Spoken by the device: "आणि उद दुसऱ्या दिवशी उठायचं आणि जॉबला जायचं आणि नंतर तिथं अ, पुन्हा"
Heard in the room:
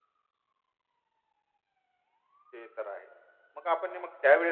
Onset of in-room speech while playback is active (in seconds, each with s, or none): 2.5 s